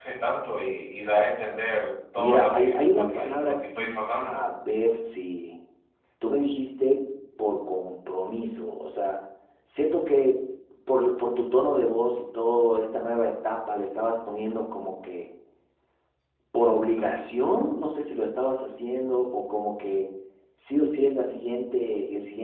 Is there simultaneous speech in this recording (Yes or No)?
Yes